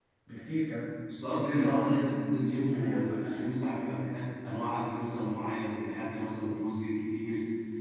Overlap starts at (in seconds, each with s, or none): 1.3 s